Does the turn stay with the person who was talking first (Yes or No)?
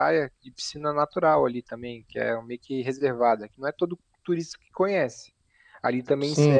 Yes